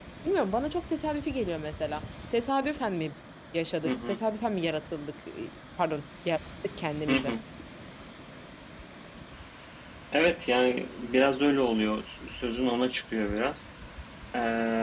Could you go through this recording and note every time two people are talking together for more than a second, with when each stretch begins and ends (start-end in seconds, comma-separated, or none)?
none